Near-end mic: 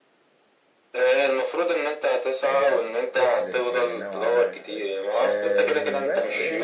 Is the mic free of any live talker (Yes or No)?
No